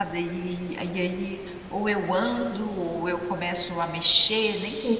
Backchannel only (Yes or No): No